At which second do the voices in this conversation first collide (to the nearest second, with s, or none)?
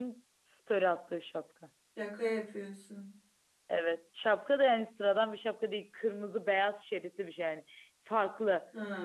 none